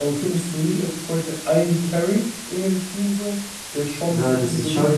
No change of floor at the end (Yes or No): No